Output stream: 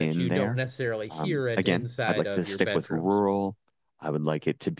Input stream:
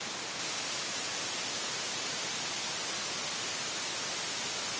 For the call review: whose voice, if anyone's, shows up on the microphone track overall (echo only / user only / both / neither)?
neither